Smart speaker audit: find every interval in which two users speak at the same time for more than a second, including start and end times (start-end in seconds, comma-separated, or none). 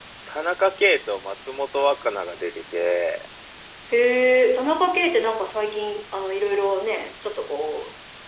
none